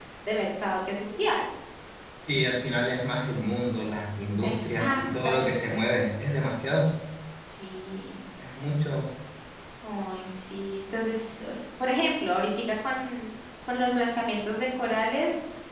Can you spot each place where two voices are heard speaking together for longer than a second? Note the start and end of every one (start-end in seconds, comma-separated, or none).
4.4-5.9